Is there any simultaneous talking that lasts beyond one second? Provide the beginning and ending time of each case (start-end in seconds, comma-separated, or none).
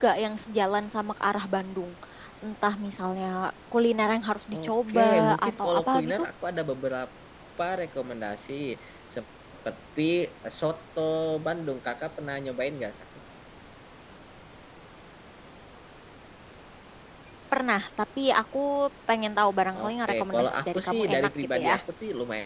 4.5-6.3, 19.7-21.8